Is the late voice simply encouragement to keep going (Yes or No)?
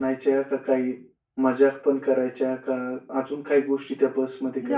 No